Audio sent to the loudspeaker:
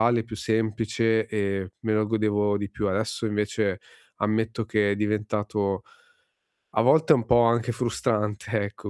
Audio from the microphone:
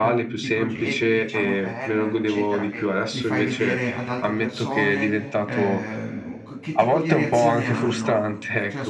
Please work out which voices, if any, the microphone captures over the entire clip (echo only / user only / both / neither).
both